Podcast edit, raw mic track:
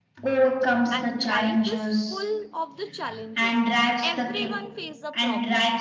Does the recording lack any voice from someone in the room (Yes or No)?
No